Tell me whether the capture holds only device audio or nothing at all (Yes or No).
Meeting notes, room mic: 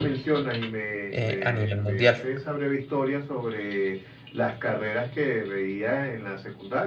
No